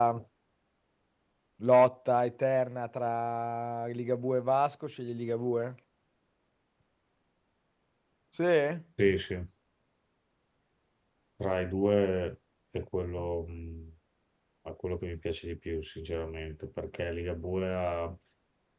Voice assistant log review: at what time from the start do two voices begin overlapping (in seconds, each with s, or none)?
none